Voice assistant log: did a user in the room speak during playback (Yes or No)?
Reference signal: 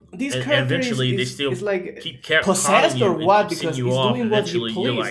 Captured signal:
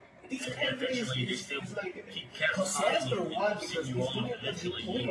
No